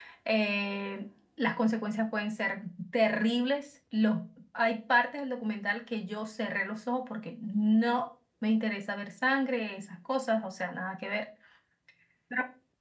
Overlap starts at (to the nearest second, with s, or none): none